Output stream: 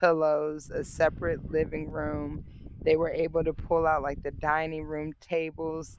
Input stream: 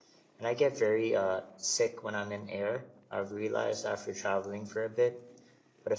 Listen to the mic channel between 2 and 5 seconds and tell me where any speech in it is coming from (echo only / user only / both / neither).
user only